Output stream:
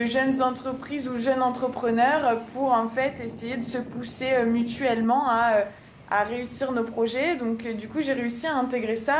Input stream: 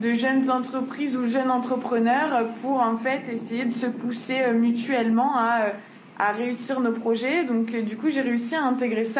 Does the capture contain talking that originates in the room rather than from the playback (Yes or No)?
No